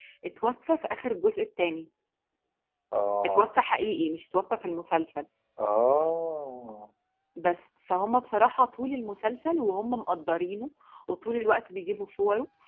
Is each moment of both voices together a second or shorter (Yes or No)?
Yes